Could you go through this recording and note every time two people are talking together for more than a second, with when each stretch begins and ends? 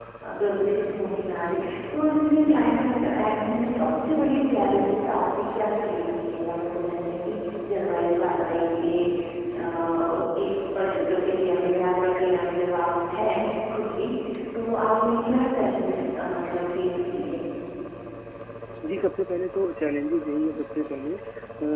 none

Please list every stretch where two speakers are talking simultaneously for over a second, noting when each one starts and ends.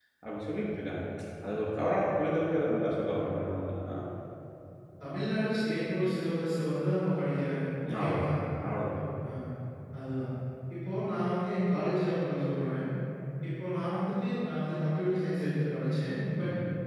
none

